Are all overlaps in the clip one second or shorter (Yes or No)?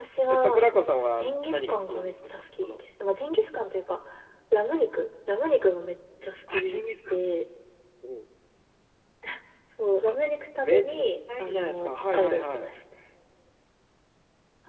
No